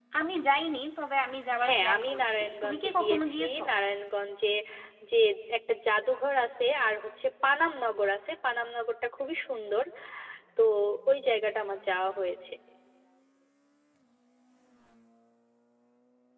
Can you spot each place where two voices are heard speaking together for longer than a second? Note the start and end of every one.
1.6-3.6

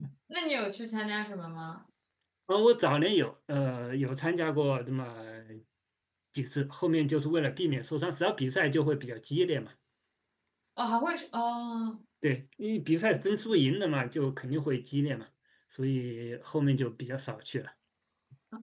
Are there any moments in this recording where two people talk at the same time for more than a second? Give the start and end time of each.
none

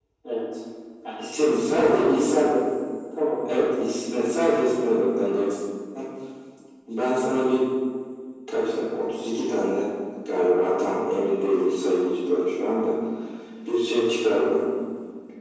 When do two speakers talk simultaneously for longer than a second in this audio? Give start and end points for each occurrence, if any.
1.2-2.5

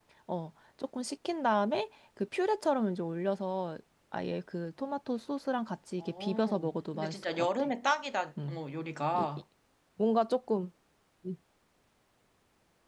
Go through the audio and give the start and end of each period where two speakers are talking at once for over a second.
6.0-7.7

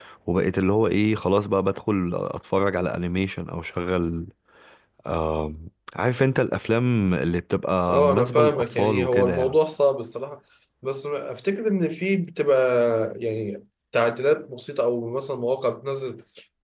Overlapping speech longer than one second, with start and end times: 7.9-9.6

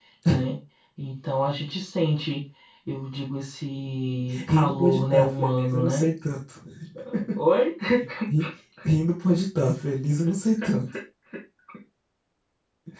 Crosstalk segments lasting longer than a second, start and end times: 4.5-6.1

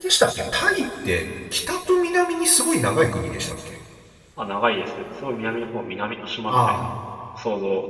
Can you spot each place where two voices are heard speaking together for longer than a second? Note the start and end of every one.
none

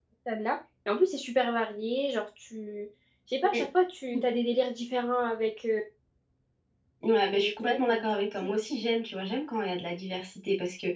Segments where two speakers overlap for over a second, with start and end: 7.4-8.6

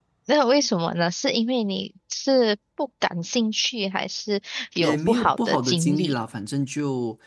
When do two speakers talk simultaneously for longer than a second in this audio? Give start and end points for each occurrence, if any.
4.8-6.2

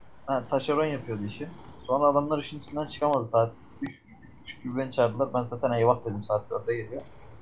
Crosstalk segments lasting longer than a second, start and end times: none

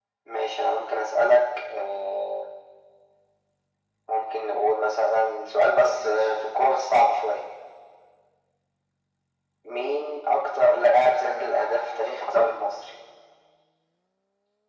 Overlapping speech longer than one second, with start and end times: 5.2-6.8, 11.2-12.5

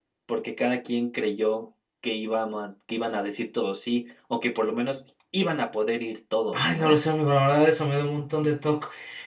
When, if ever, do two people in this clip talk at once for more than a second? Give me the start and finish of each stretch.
none

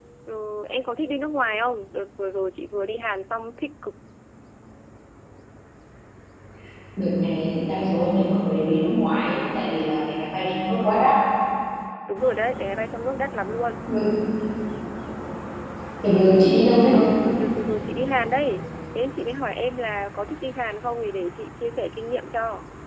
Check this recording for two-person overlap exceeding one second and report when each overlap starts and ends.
none

